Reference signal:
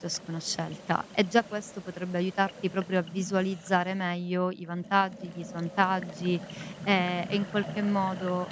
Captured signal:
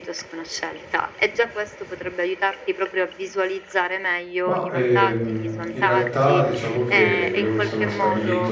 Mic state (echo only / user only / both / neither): both